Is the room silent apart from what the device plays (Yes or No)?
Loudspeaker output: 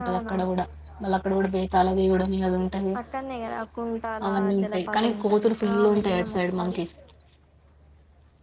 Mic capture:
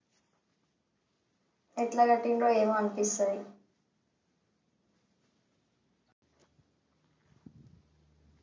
No